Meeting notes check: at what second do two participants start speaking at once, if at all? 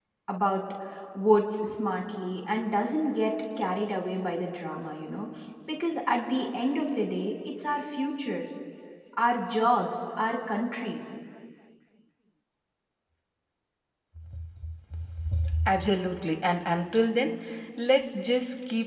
none

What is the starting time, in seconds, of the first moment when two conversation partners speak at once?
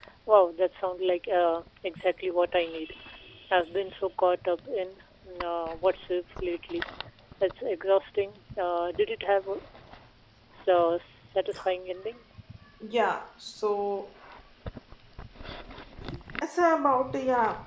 none

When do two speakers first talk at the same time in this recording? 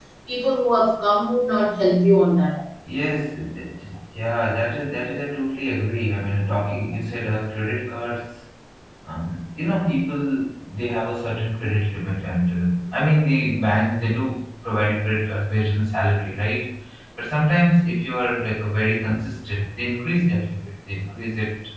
none

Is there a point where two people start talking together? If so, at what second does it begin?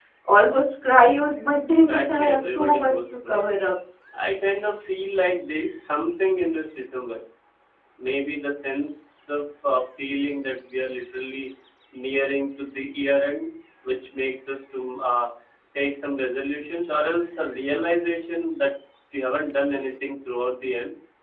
1.7 s

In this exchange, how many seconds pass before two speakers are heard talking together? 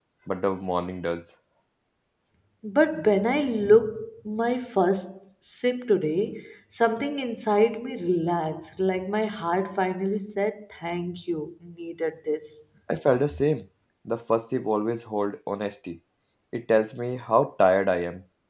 none

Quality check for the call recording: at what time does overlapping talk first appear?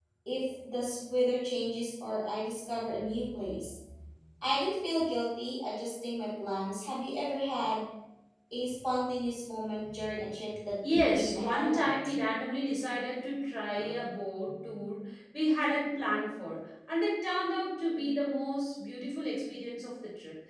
10.8 s

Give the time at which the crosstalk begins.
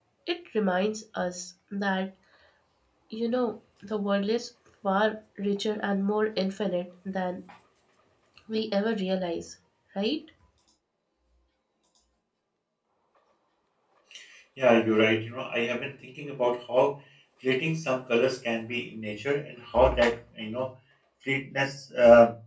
none

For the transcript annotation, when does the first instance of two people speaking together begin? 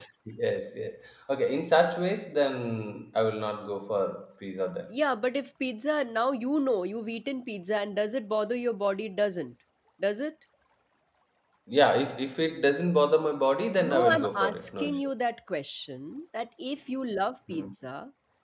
13.8 s

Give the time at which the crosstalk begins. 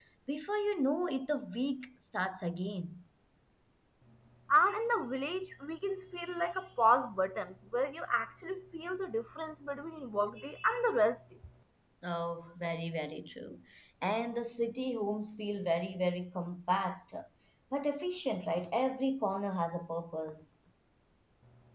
none

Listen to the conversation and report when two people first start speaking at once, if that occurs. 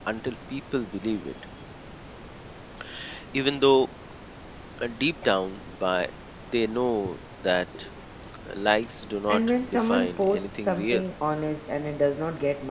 9.3 s

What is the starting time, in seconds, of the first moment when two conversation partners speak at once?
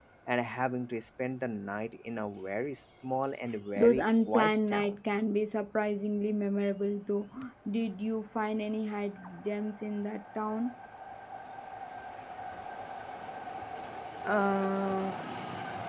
3.8 s

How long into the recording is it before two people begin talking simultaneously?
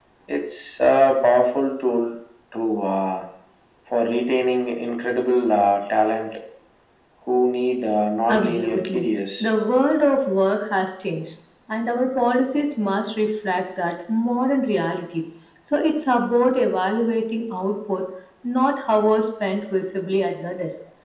8.3 s

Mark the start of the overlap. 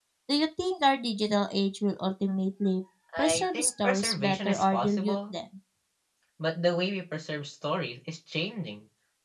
3.1 s

